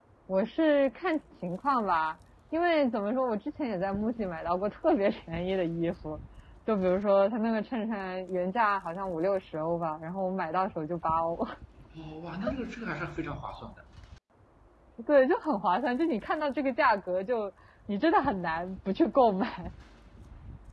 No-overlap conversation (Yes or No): Yes